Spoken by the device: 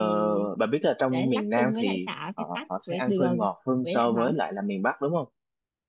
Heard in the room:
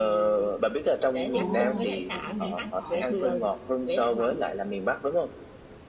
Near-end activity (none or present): present